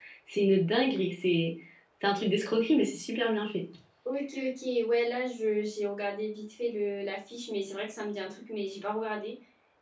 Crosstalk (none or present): none